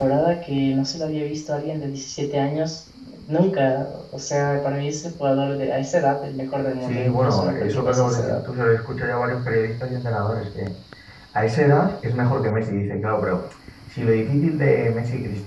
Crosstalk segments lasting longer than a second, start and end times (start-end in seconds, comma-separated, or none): 6.9-8.4